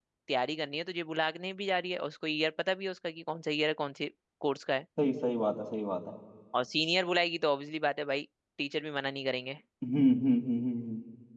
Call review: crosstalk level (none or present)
none